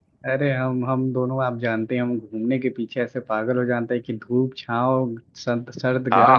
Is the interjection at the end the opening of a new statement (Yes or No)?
Yes